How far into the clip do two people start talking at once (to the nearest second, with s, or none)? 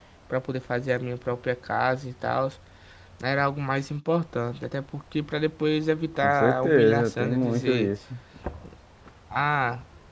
6 s